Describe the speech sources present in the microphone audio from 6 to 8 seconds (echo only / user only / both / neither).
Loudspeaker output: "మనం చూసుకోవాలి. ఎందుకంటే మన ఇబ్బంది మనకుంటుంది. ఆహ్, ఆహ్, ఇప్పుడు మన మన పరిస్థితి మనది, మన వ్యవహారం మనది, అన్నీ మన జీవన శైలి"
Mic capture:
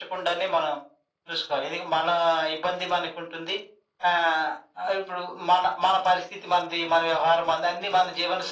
echo only